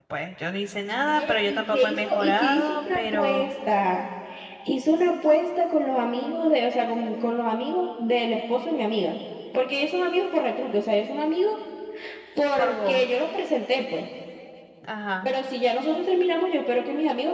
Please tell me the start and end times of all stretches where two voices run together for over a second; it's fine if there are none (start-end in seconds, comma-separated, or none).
1.1-3.5